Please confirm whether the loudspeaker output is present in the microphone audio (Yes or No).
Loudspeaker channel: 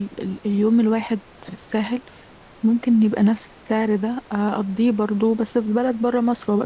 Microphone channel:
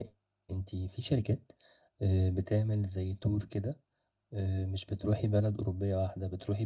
No